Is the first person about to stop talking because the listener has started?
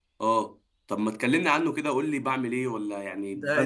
Yes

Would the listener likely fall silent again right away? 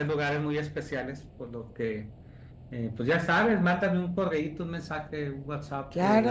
No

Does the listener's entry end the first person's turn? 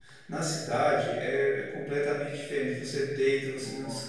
No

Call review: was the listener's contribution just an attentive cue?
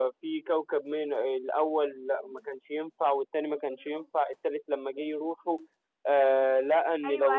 No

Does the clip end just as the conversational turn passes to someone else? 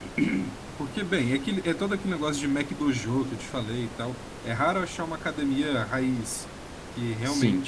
No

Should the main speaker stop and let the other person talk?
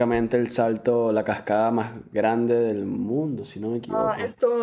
Yes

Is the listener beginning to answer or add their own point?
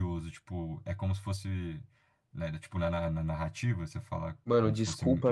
Yes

